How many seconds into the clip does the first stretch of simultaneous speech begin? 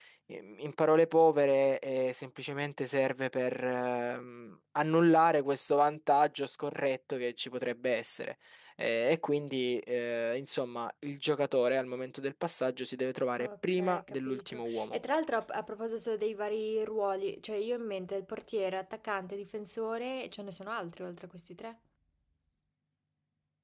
13.4 s

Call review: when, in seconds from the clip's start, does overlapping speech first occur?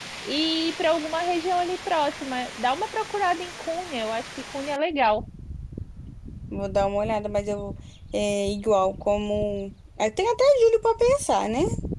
none

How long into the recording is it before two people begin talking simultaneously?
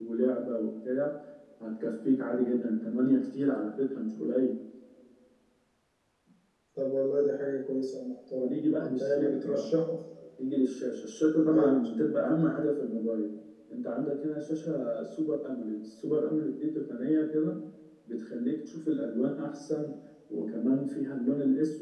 8.4 s

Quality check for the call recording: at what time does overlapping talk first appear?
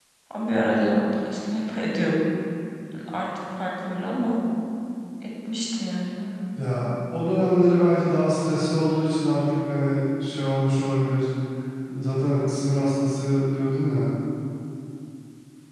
none

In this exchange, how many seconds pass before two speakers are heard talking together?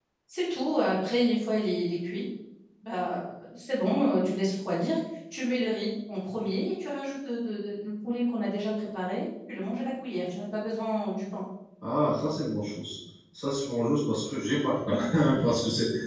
none

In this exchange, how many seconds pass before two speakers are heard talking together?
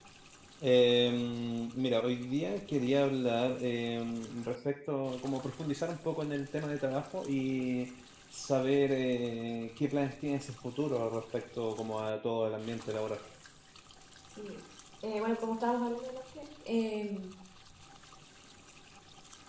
none

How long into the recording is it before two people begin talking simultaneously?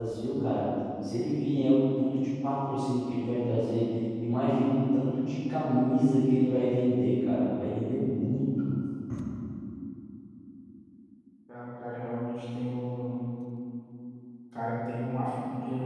none

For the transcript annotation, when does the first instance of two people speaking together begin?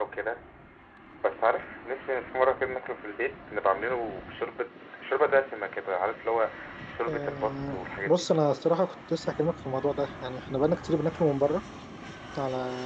7.1 s

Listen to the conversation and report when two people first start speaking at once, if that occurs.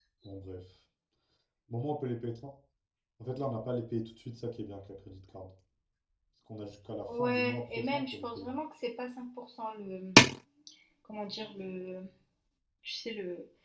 7.1 s

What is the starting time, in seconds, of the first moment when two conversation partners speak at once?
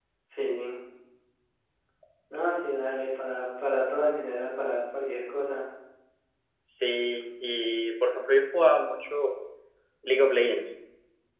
none

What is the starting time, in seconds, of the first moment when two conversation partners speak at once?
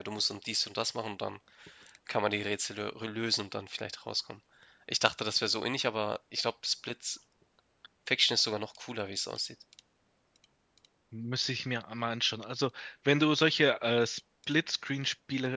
none

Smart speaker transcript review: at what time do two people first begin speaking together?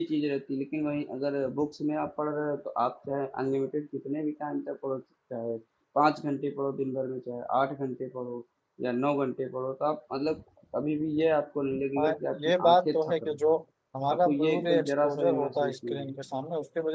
12.0 s

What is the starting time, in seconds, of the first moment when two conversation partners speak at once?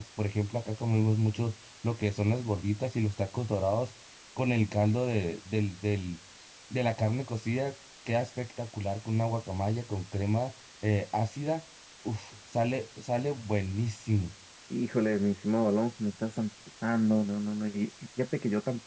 none

